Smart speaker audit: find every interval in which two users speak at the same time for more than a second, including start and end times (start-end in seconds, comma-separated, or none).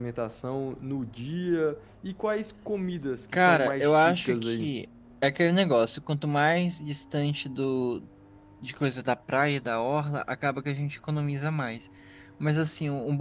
3.3-4.7